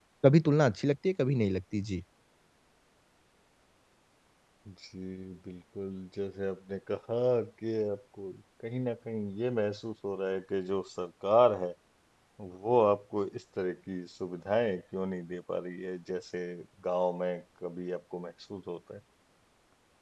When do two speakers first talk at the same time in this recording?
none

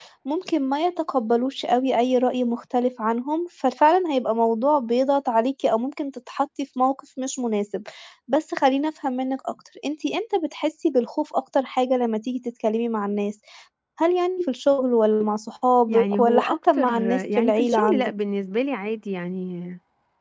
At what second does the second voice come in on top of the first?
16 s

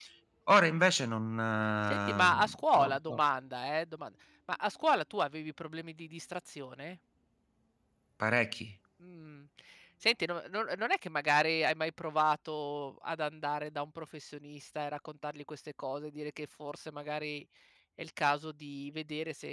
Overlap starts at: 2 s

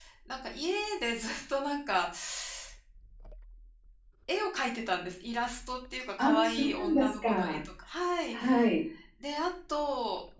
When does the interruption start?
6 s

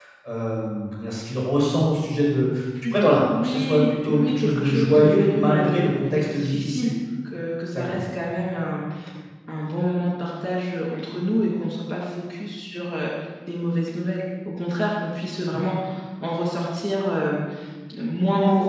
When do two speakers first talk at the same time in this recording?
3 s

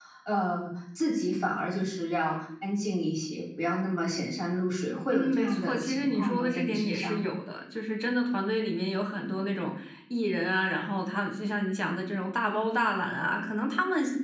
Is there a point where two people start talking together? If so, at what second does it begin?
5 s

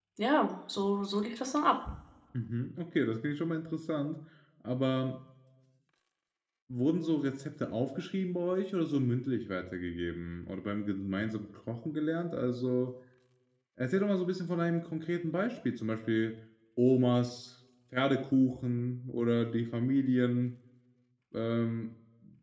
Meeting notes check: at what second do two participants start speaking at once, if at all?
none

